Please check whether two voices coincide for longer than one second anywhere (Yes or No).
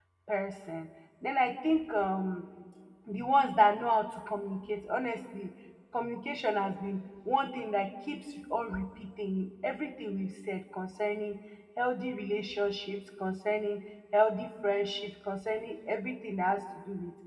No